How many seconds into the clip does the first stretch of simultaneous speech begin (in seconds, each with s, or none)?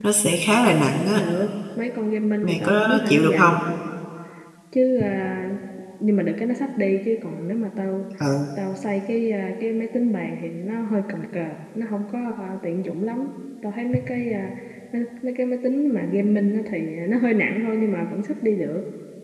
2.4 s